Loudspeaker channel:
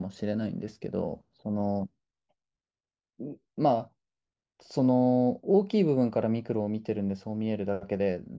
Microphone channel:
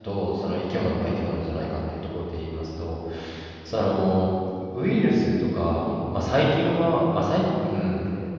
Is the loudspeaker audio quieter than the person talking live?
Yes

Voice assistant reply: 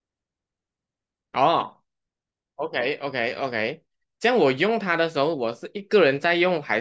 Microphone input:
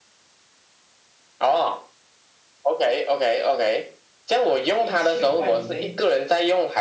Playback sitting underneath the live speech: No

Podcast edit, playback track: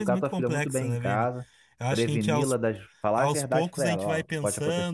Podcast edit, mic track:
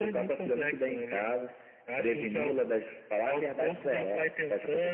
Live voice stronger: No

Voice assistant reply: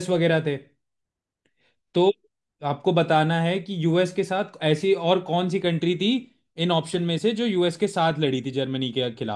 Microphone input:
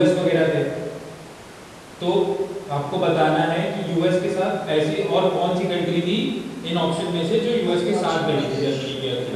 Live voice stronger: No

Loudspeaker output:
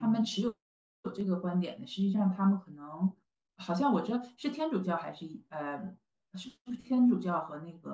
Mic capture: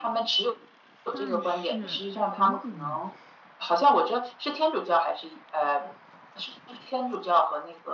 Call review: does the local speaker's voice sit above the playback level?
No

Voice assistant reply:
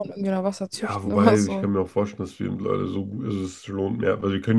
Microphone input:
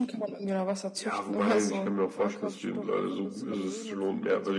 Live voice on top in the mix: No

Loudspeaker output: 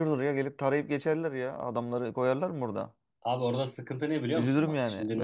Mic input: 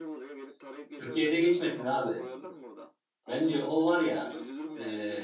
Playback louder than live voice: No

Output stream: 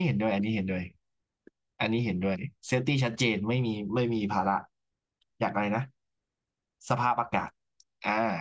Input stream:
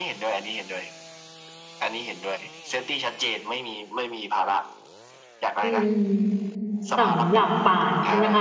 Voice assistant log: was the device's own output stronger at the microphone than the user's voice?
No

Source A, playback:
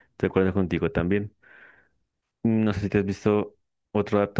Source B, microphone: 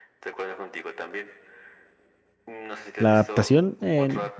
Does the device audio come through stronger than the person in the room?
No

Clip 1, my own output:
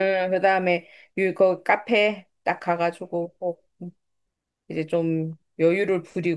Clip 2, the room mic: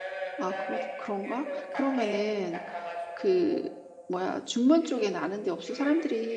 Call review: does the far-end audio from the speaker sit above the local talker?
No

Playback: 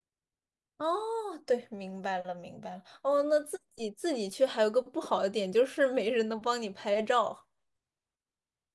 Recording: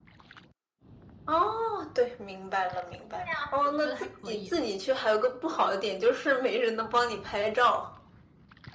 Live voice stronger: No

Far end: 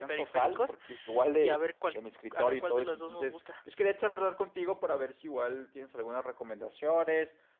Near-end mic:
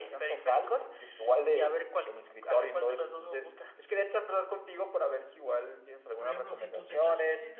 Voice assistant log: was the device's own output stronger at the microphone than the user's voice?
Yes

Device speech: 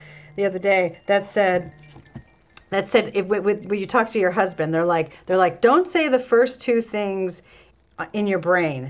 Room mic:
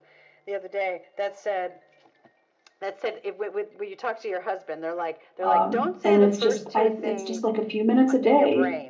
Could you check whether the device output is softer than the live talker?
Yes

